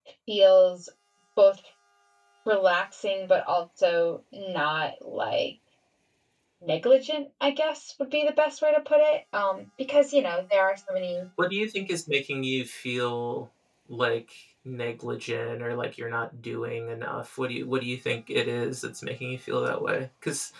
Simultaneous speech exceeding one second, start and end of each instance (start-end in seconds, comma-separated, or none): none